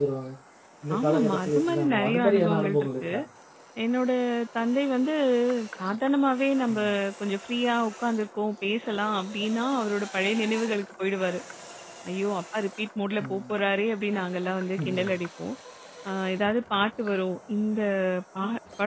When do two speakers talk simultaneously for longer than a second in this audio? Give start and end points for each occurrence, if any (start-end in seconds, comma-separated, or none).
1.0-3.0